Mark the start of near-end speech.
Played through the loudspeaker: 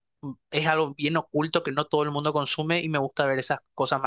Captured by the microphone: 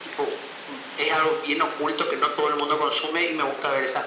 none

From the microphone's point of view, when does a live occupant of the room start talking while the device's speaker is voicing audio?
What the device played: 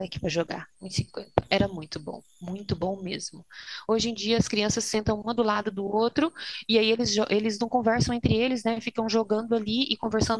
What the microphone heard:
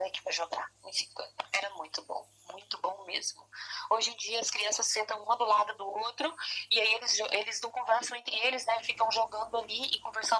none

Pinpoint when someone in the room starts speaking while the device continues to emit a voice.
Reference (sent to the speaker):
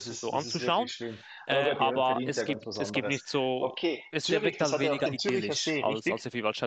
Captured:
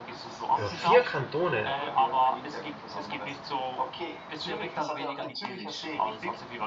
0.5 s

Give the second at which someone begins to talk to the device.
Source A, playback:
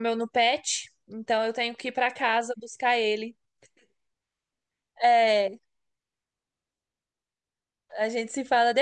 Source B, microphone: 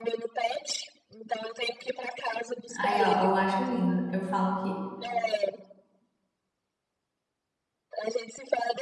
2.8 s

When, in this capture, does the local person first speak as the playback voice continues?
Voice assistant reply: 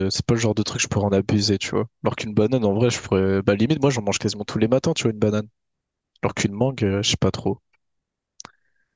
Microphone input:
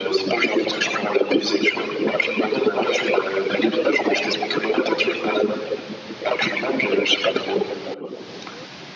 none

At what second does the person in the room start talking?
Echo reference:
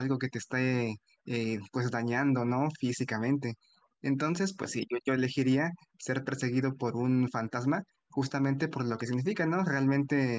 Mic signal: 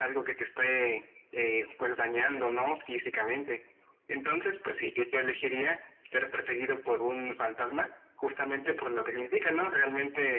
none

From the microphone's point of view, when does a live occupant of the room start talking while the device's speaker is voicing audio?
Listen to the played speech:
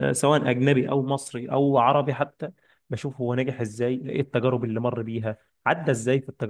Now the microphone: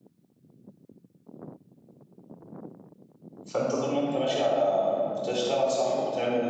3.4 s

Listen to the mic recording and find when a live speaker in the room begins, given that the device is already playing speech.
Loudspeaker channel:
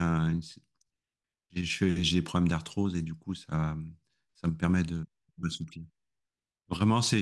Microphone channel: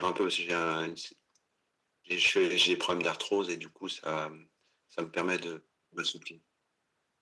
none

